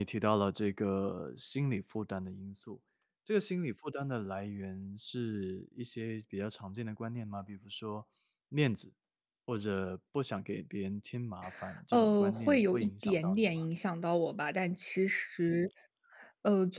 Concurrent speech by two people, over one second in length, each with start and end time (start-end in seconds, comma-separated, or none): 11.9-13.5